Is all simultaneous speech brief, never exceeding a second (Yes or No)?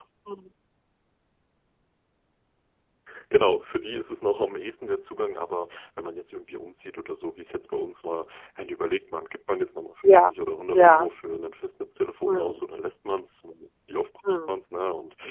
Yes